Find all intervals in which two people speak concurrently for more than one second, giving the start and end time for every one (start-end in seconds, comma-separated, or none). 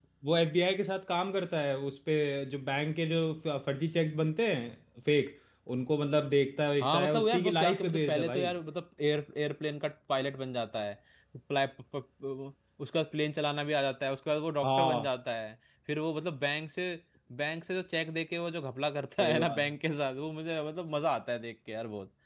6.8-8.5